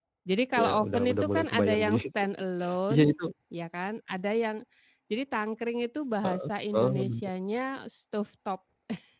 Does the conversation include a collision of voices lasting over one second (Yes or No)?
Yes